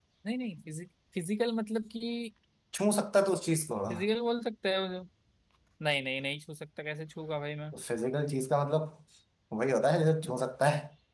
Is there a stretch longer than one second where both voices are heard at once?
No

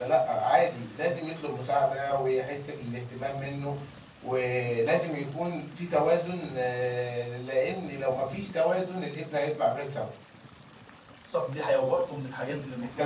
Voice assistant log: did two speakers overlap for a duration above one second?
No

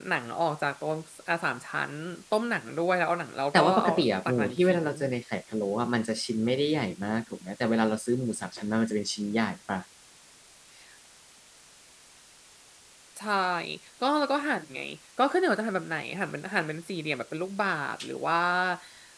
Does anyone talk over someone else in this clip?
Yes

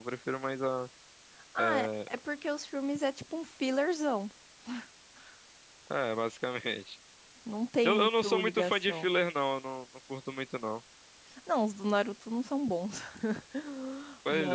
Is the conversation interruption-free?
No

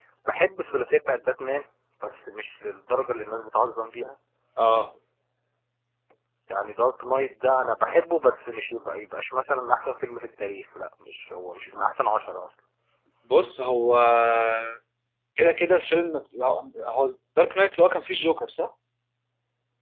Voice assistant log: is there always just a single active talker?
Yes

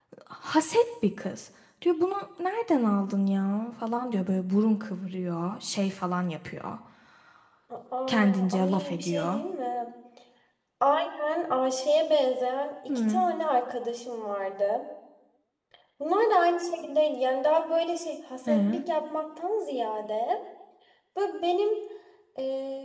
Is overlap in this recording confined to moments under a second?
No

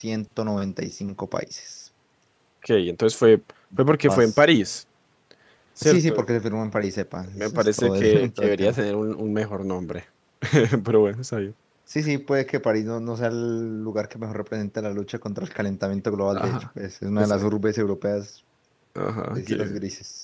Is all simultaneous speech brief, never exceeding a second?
No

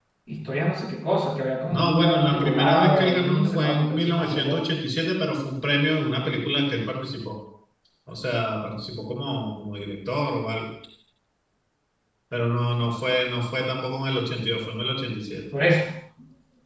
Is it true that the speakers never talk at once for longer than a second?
No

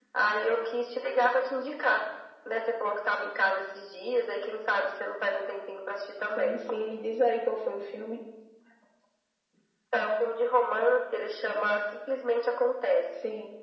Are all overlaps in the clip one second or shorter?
Yes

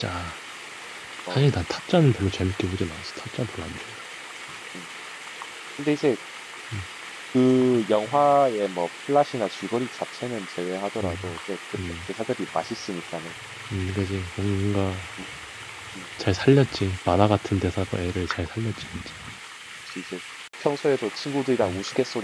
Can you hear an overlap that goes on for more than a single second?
No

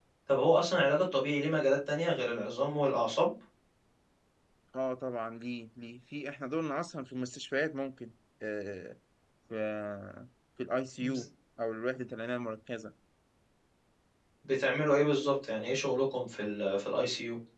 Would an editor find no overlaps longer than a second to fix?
Yes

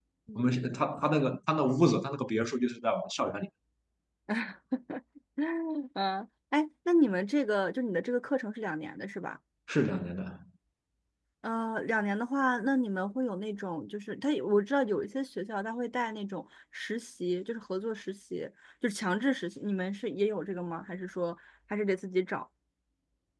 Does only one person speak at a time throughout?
Yes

